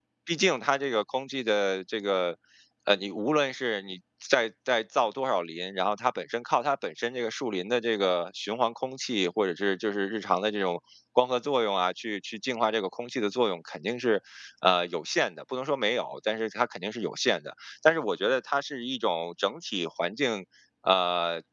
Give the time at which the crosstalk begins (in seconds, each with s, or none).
none